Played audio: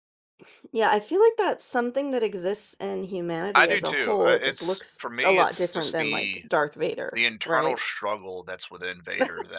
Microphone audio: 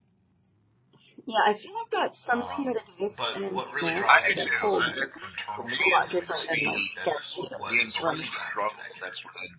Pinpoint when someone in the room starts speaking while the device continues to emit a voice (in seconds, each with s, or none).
2.3 s